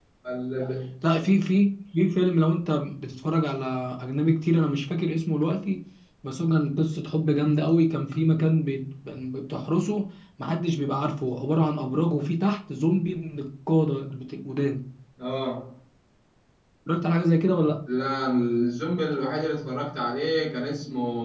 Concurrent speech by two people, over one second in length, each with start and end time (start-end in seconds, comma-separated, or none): none